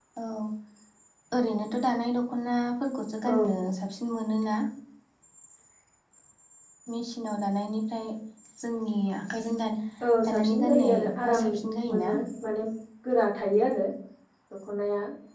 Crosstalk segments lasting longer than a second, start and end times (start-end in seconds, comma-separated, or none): 10.2-11.4